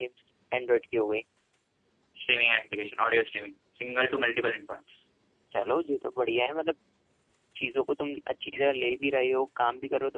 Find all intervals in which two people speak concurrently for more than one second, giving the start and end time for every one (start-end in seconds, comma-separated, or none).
none